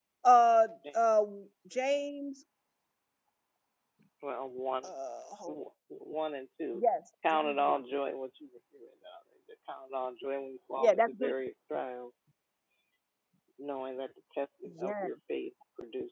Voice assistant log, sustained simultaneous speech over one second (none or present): none